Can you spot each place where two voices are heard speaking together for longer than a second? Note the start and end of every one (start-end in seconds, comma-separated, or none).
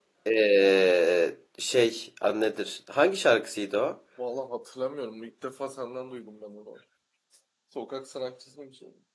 none